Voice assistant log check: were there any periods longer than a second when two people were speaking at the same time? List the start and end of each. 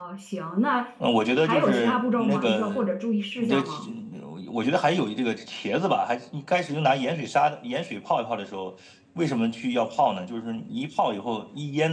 1.4-2.8

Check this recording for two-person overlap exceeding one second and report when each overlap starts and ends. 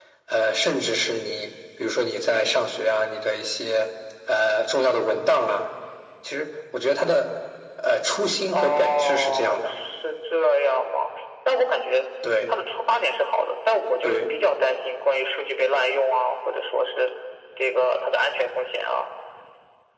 8.5-9.7

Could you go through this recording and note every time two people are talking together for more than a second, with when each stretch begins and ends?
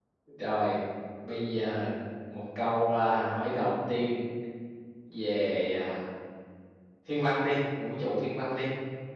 none

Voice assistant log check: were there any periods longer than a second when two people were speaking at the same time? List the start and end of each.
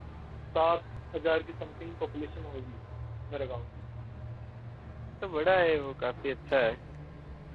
none

